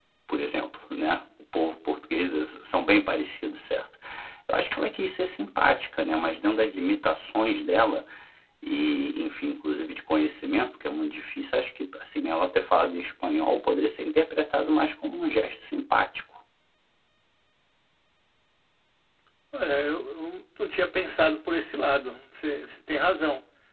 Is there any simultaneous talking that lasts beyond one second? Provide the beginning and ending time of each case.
none

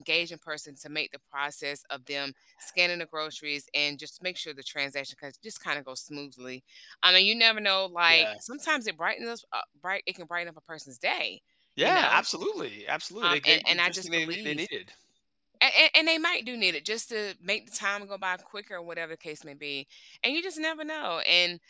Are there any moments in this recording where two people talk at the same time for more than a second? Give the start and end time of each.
13.2-14.7

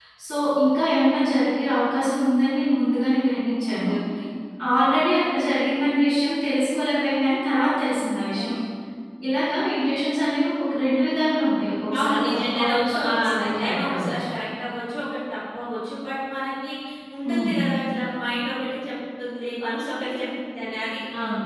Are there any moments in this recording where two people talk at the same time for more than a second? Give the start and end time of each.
12.0-14.2

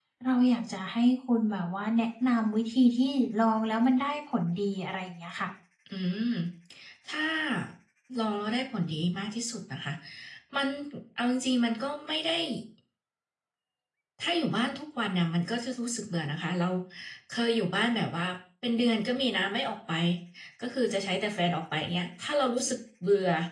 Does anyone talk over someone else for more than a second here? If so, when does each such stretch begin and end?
none

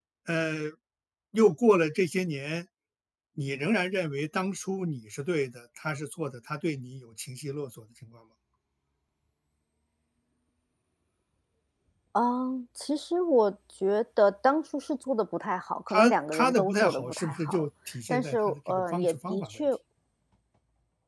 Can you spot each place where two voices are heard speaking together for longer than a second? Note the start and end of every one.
15.9-17.6, 18.1-19.5

